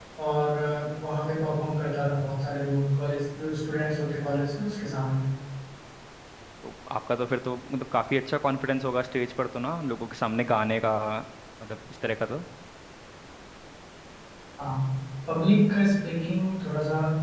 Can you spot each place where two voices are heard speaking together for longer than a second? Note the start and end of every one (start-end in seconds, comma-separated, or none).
none